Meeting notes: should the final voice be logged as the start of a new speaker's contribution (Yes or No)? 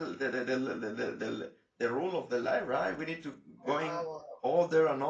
No